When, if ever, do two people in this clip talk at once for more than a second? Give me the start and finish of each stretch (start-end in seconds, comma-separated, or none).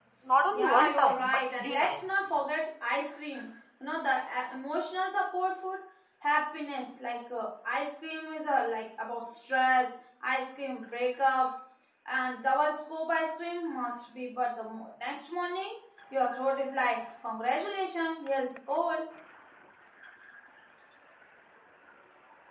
0.5-2.0